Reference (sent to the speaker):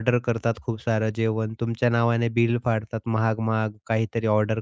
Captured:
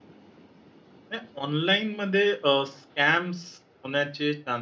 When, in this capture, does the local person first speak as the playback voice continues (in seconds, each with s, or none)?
1.1 s